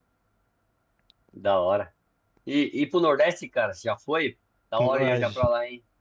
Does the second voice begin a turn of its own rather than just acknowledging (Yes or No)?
Yes